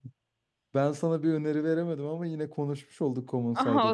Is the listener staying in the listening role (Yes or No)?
No